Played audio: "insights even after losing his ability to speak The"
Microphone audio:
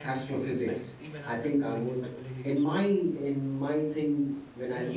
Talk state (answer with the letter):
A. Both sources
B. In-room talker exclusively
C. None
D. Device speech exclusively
A